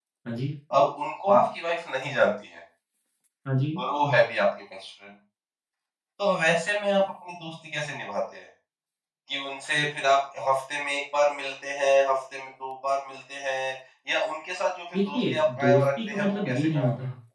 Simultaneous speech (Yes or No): Yes